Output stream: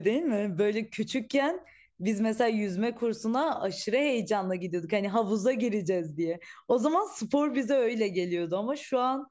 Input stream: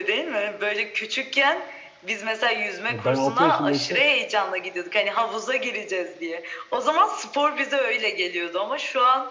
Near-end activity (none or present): present